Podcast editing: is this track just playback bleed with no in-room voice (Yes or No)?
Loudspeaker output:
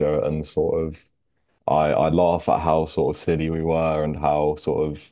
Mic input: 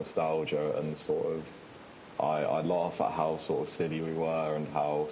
Yes